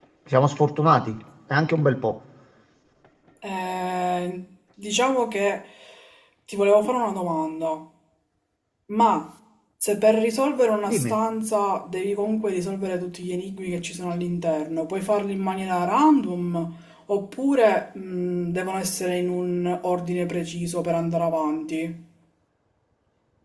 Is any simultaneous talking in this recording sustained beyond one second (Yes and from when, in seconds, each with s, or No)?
No